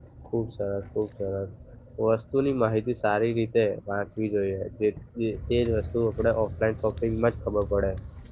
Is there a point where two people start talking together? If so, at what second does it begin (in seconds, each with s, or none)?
none